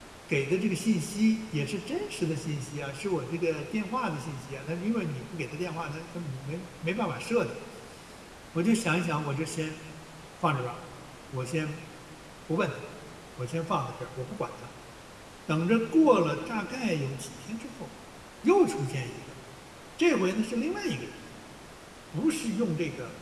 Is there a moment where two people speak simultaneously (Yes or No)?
No